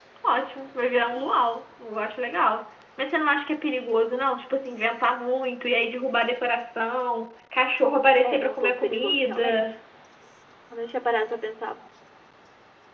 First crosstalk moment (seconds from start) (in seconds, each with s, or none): 8.2 s